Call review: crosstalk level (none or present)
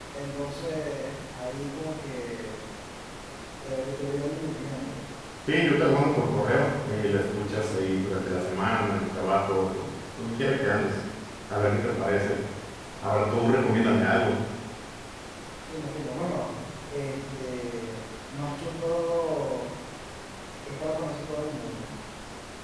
none